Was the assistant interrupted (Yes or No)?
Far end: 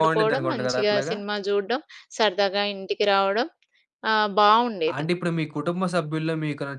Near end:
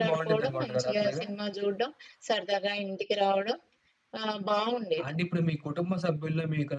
No